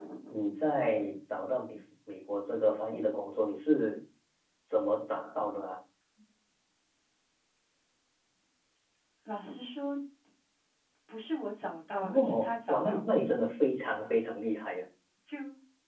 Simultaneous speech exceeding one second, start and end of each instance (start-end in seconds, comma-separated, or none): 12.0-13.2